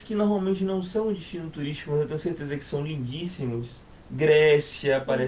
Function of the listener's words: taking over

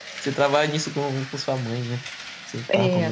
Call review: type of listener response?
taking over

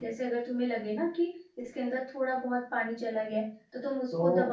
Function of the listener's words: listening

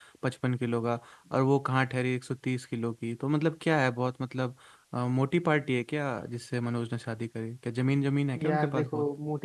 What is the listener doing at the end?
taking over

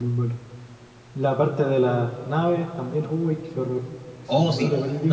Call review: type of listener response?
taking over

